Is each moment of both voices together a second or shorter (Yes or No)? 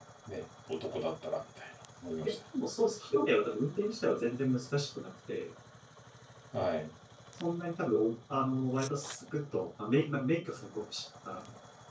Yes